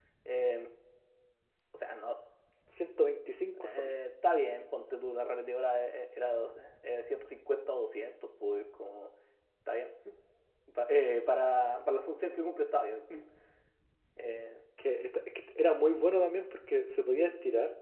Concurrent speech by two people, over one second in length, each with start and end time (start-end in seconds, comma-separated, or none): none